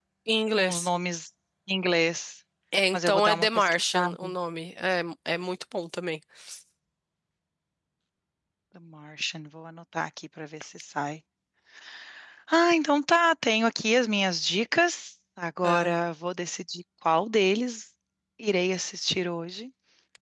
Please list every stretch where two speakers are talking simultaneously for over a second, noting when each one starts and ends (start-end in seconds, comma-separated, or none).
2.9-4.3